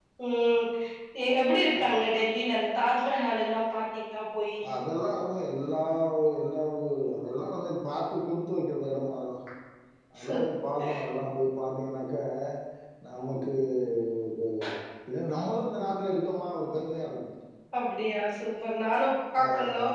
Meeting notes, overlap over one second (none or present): none